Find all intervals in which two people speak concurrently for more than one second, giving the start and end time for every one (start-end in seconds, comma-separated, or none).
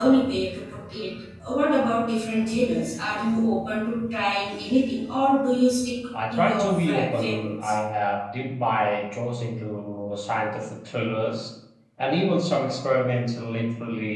6.3-7.7